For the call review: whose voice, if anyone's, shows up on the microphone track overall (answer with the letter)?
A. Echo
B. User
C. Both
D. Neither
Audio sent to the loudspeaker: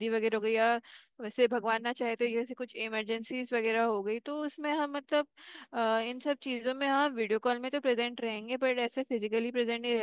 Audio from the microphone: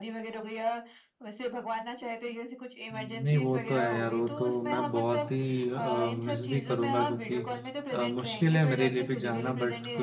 C